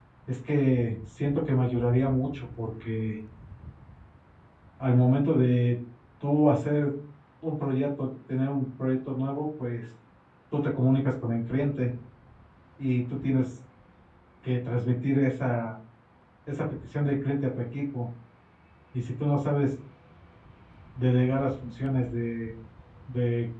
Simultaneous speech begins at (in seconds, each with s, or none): none